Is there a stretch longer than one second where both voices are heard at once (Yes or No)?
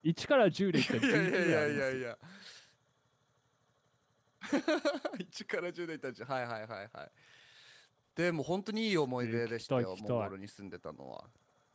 Yes